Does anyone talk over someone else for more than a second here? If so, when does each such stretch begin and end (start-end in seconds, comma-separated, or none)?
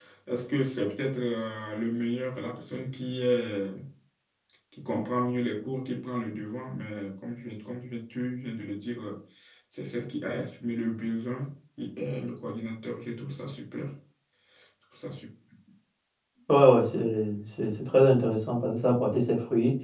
none